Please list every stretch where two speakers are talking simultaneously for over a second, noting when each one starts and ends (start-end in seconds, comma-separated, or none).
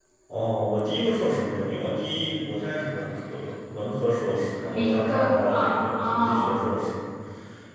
4.7-6.6